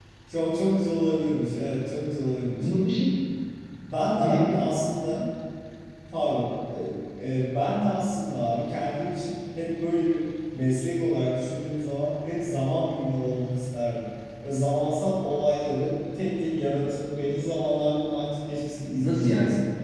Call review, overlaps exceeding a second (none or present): none